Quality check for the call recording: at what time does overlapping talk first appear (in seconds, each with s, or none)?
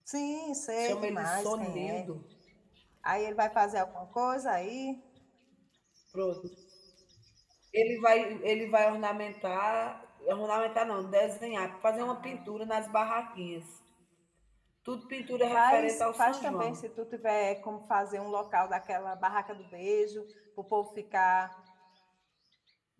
0.8 s